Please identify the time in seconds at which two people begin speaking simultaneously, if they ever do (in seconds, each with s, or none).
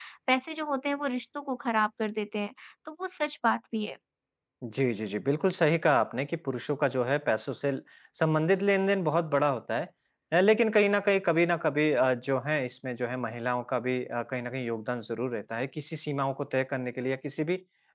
none